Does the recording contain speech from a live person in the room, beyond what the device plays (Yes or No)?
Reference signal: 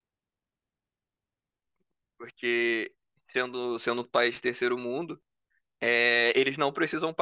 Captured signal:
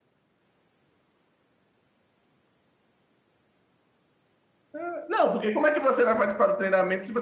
Yes